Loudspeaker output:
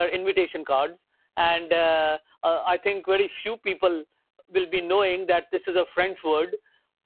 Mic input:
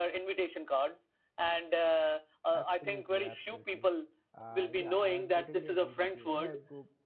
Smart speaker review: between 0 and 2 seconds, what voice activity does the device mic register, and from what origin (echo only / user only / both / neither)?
echo only